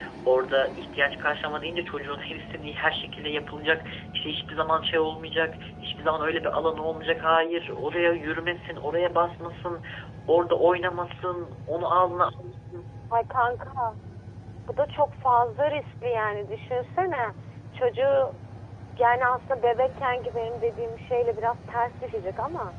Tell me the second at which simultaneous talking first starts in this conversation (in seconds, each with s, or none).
none